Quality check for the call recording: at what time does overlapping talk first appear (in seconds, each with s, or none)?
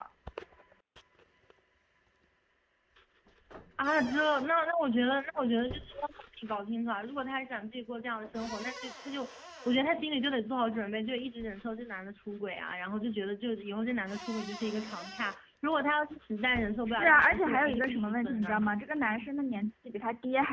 16.9 s